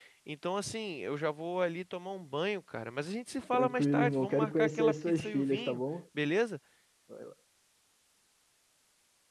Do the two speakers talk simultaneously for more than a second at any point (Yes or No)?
Yes